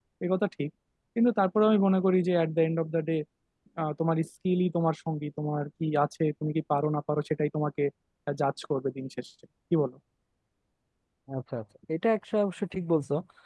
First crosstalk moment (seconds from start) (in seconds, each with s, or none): none